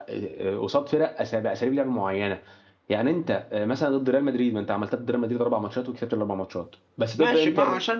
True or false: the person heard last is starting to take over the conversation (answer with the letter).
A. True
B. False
A